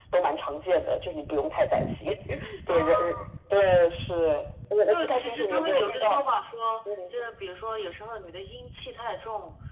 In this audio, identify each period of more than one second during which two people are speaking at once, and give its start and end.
4.9-6.2

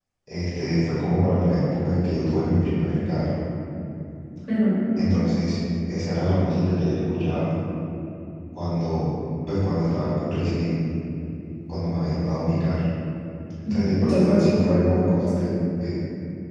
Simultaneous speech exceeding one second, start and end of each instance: 13.7-15.3

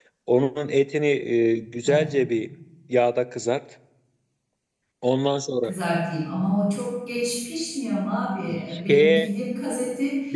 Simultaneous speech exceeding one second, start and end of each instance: none

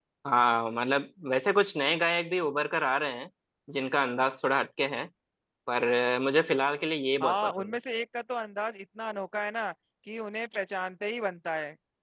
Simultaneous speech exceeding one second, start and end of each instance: none

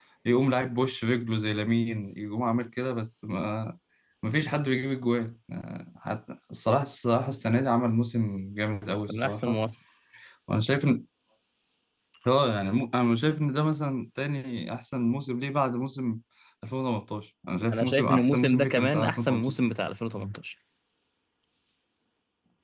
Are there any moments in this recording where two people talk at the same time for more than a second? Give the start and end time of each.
17.7-19.6

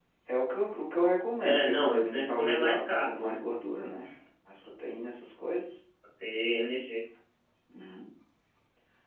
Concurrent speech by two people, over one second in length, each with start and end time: 1.4-3.4

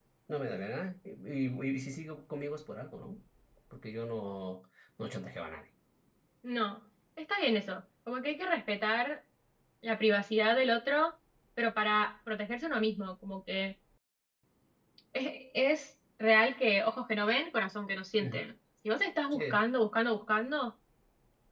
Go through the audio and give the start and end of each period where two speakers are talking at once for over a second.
none

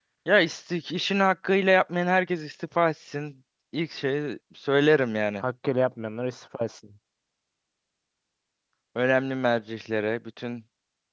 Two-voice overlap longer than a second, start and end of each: none

